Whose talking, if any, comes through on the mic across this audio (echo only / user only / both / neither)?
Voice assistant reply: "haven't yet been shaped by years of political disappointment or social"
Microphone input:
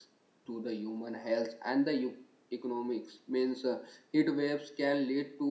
user only